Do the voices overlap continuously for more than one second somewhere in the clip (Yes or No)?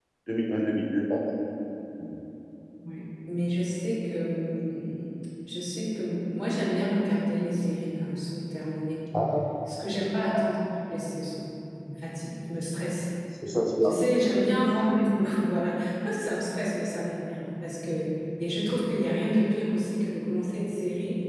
No